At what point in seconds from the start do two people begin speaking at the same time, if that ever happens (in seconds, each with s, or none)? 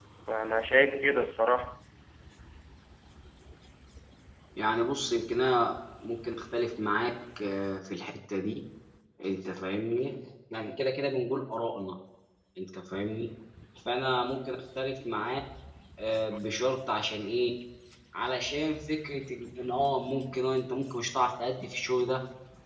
none